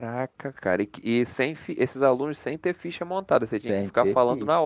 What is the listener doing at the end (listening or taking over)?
taking over